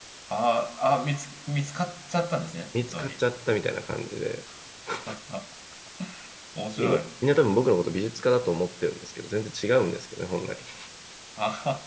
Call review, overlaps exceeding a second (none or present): none